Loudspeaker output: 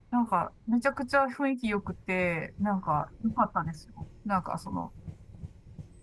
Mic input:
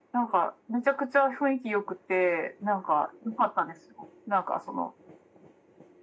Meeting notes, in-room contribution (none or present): none